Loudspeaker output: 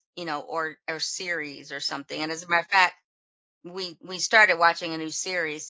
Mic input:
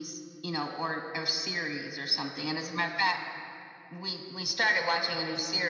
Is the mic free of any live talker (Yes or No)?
Yes